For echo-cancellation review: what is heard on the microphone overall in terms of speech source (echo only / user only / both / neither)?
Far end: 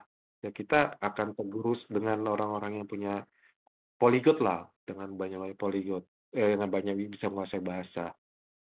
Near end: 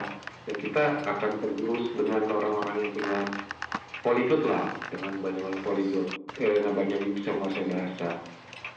echo only